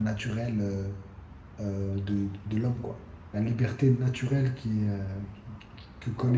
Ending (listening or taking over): taking over